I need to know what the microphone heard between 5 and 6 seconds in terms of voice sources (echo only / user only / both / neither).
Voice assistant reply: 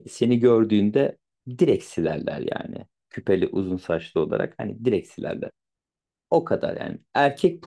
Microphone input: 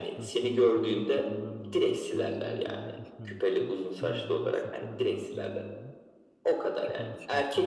both